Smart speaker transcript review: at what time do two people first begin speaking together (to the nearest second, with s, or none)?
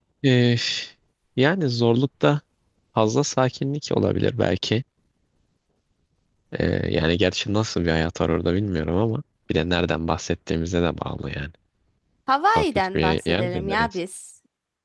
13 s